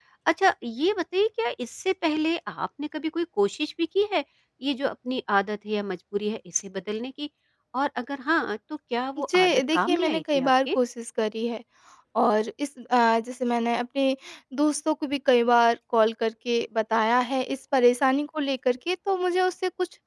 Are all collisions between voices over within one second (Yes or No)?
No